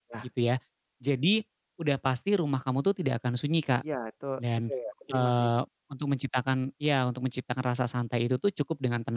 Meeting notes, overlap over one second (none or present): none